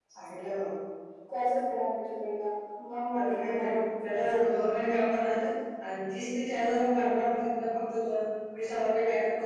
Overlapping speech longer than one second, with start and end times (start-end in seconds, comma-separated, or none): 3.1-4.4